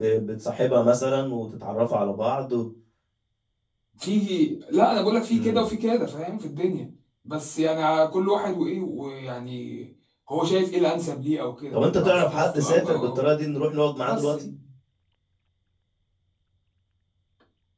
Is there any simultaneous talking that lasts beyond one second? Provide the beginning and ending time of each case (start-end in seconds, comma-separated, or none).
11.7-13.2